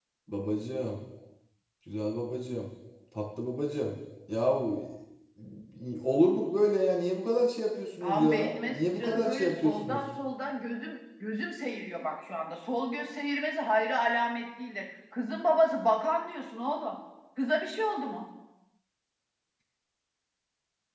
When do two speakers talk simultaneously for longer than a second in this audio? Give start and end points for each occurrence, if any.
8.0-10.0

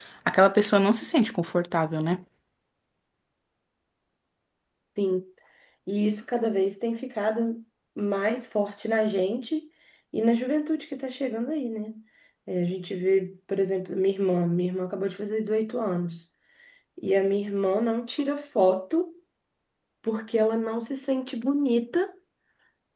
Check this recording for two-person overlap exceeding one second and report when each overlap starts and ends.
none

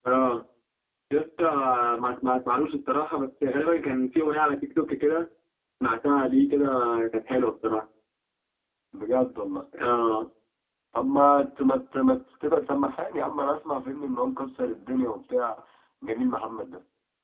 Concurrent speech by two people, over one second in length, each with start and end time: none

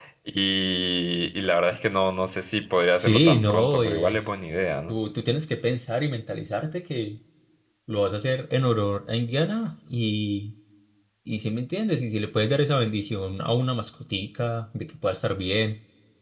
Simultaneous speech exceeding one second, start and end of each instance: 3.0-4.2

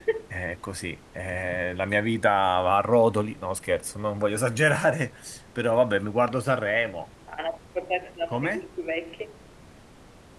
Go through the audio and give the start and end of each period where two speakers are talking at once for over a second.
none

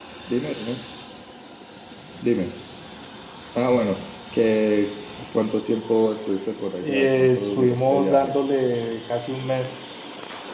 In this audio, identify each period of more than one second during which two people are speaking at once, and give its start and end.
6.8-8.3

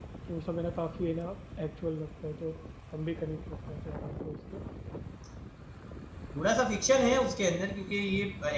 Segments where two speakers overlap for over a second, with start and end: none

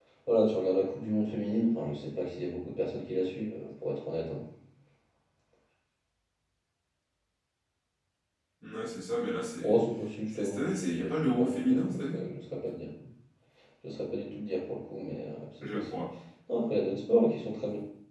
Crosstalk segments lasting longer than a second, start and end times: 10.3-12.2

